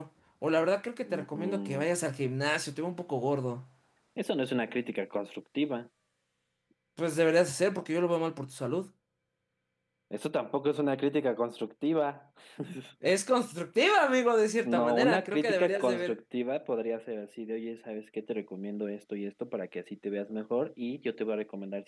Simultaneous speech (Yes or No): Yes